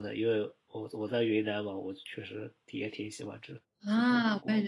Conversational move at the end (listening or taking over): taking over